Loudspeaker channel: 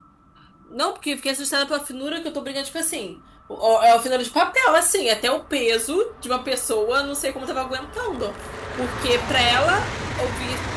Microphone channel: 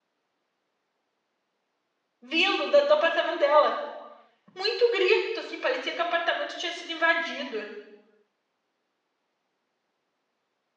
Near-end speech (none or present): present